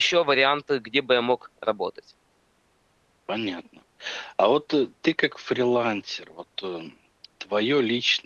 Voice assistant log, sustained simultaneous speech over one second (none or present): none